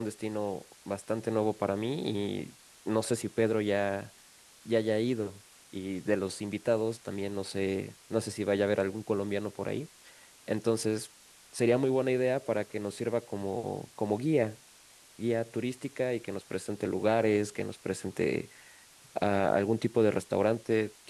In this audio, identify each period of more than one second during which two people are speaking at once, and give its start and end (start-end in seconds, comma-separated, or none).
none